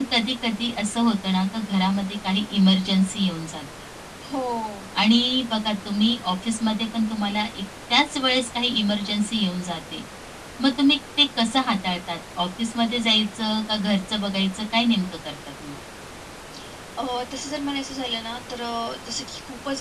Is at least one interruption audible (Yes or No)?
No